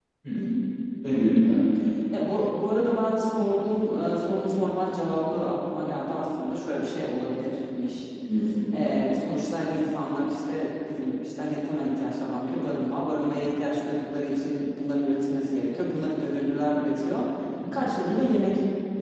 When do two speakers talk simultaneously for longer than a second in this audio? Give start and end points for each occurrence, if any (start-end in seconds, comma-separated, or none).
none